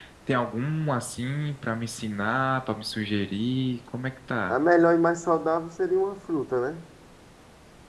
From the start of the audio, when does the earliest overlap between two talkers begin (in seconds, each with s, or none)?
none